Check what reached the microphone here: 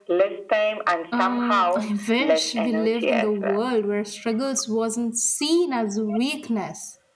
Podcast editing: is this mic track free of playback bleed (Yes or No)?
No